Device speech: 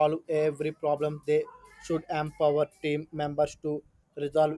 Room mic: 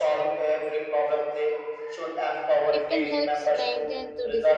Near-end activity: present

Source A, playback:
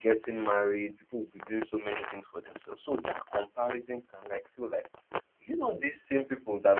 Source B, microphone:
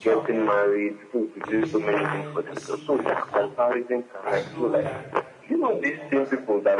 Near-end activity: present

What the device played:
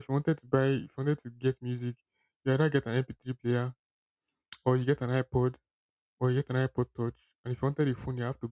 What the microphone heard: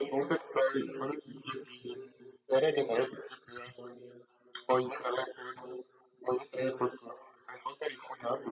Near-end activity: none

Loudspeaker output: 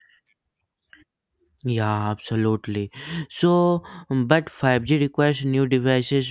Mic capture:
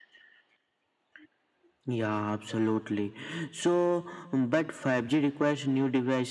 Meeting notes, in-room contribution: none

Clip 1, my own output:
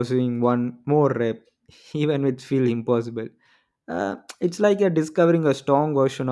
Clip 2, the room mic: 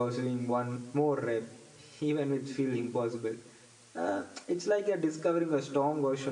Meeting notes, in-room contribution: none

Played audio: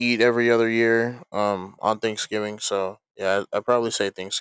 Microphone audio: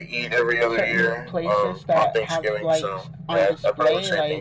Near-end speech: present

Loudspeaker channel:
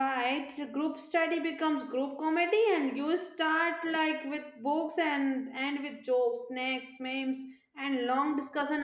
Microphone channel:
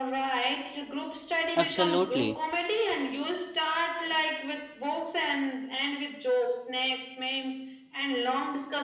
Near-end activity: present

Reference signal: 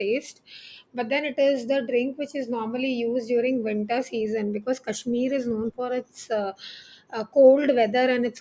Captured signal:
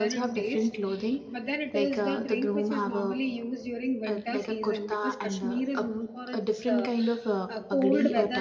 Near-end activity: present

